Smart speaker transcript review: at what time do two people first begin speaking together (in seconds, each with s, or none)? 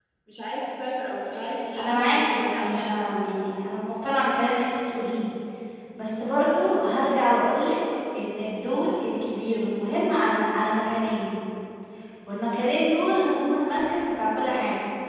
1.8 s